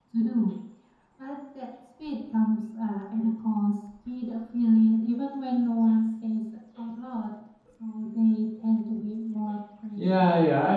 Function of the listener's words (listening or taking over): taking over